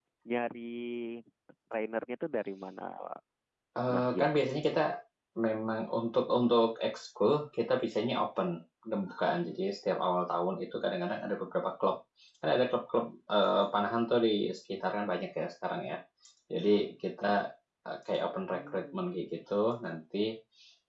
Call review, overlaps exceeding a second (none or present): none